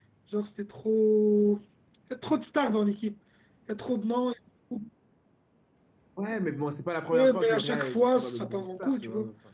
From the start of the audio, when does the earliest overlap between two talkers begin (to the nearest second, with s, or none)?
7 s